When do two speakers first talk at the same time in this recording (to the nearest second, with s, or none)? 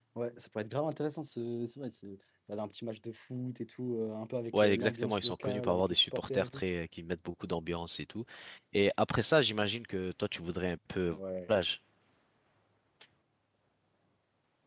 5 s